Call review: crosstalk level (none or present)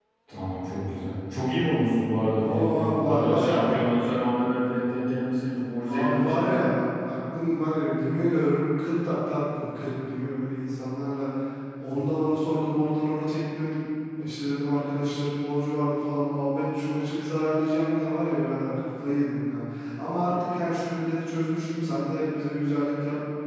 present